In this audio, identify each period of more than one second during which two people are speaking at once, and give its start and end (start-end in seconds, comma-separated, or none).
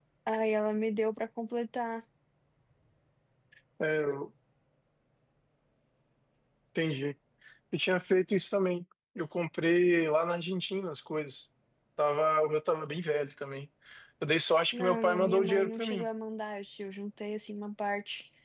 14.7-16.1